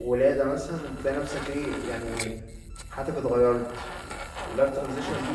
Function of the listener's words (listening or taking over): listening